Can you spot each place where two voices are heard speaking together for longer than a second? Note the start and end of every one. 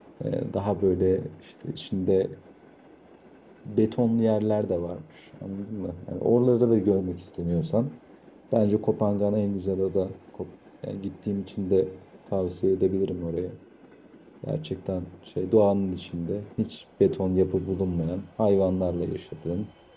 none

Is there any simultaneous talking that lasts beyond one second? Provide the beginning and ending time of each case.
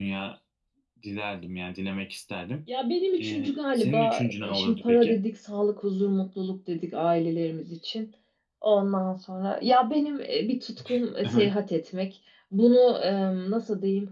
3.2-5.2

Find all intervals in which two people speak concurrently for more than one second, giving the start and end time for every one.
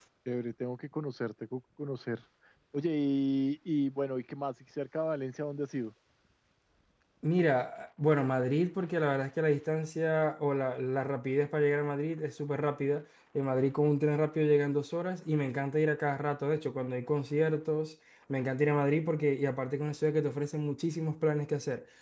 none

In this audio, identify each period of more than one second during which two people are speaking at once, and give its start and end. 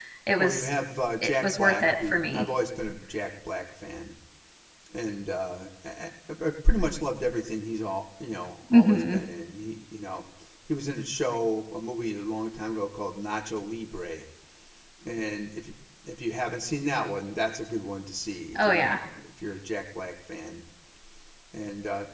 1.2-2.4

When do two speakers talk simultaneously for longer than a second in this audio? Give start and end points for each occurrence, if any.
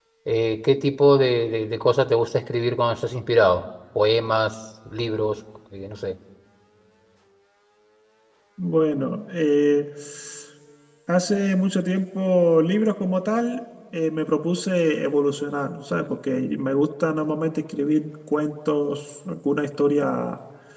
none

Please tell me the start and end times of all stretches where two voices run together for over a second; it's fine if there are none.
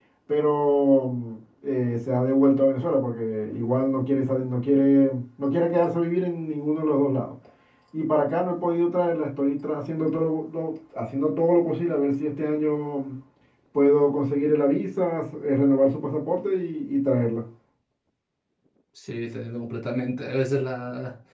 none

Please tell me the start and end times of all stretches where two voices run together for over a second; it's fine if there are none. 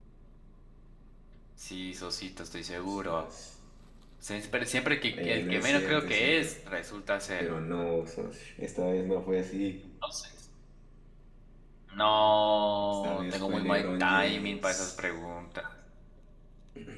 5.1-6.5, 12.9-14.9

